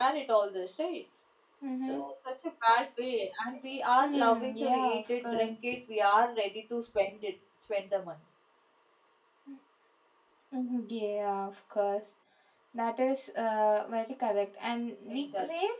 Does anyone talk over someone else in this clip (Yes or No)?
Yes